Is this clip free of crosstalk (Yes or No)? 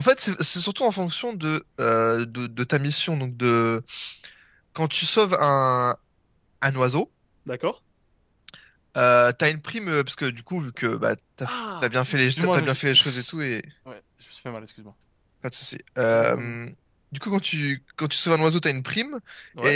No